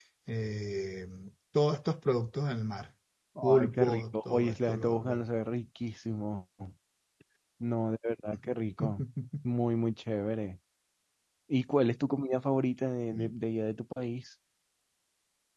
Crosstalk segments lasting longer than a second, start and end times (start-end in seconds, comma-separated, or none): 3.6-5.2